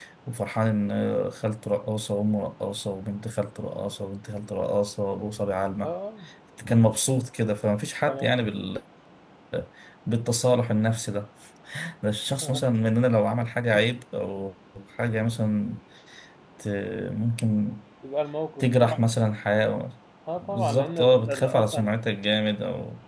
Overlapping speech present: Yes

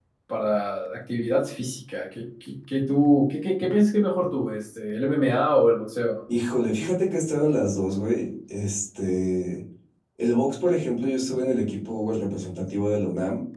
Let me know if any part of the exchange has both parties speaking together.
No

